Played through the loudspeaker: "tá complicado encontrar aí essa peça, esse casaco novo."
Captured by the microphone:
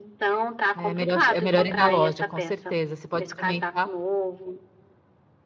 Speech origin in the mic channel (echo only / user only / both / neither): both